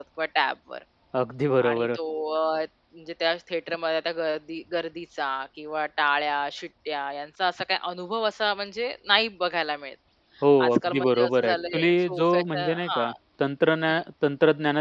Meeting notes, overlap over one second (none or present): present